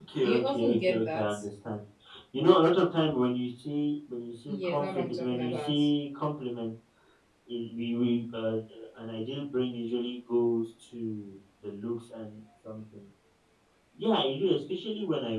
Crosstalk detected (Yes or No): Yes